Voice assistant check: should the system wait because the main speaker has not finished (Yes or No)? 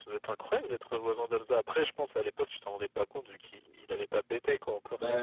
No